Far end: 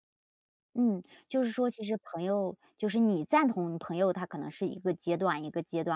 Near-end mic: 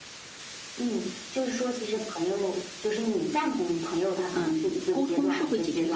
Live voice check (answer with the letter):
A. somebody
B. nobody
A